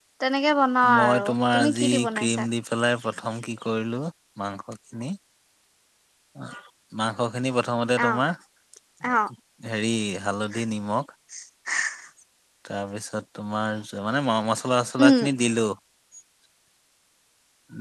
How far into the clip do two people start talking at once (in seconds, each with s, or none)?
0.9 s